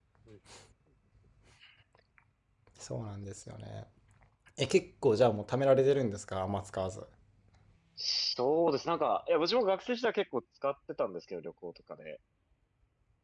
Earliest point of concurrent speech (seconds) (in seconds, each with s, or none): none